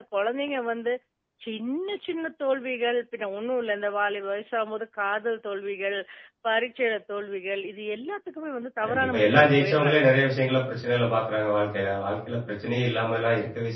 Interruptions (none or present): present